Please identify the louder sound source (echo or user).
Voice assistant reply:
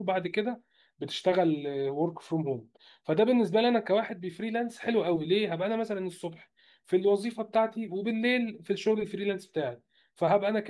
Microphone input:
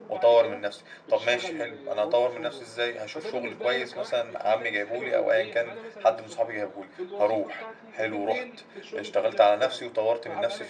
user